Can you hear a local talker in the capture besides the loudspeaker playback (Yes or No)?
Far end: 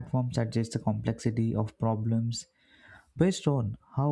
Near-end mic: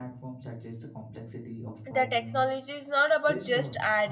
Yes